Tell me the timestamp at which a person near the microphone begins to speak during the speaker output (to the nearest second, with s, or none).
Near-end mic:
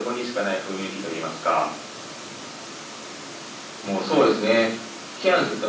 none